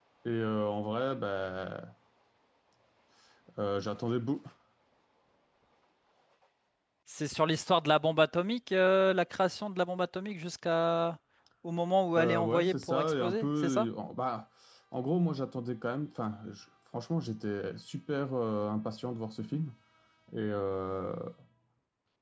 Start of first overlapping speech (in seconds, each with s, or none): 12.2 s